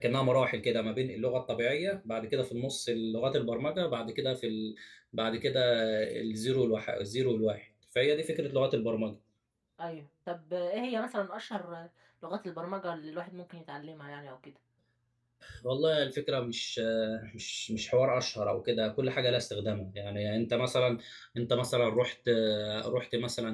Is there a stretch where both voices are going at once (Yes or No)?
No